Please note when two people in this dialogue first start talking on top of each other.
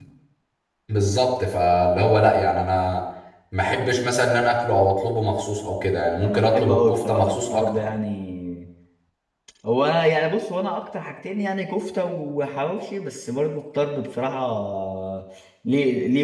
6.2 s

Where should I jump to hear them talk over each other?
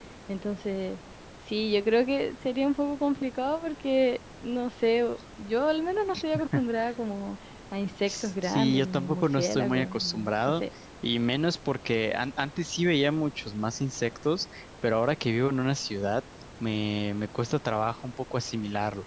8.0 s

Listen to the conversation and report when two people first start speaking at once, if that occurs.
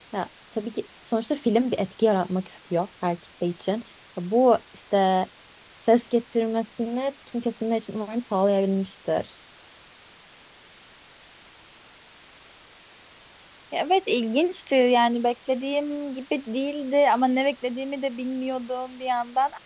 none

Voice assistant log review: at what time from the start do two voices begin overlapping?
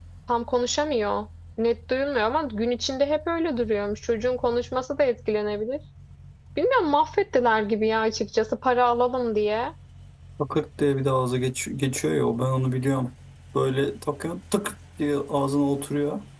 none

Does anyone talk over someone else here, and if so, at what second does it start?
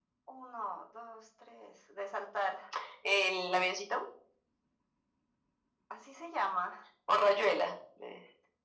none

